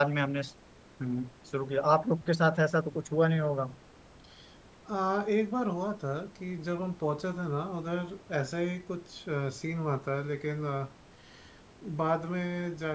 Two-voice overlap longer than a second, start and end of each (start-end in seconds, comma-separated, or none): none